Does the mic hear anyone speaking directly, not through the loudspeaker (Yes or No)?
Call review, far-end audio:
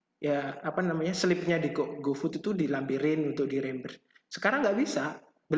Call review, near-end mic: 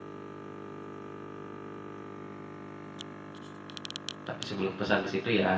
Yes